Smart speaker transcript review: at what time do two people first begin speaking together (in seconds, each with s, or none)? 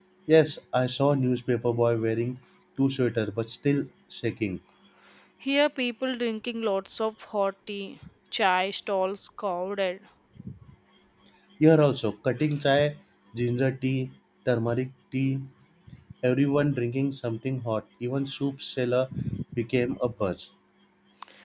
none